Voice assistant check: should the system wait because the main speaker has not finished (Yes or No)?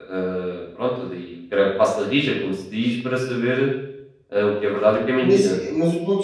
No